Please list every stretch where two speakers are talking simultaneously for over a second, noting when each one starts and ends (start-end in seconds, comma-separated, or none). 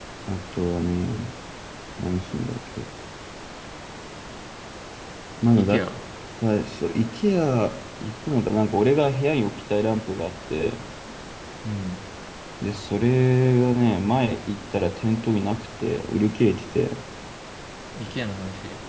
none